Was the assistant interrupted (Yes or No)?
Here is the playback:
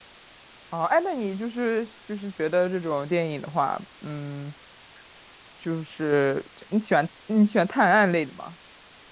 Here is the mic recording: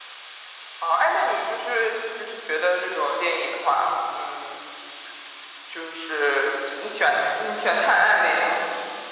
No